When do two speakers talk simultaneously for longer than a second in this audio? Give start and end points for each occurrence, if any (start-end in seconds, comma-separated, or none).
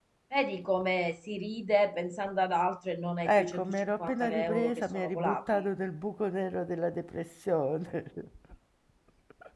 3.2-5.6